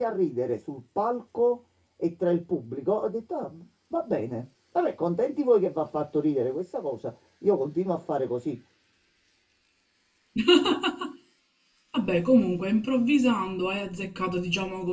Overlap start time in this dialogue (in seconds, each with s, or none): none